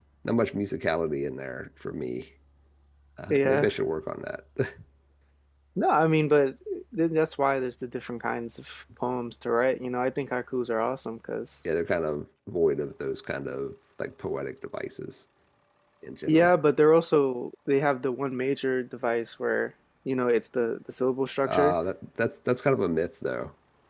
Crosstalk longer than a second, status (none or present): none